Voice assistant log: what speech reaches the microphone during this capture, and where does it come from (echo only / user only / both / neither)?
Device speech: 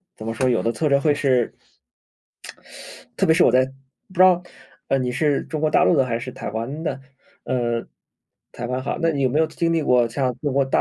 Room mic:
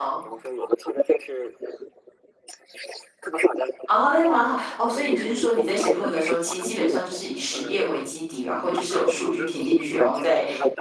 both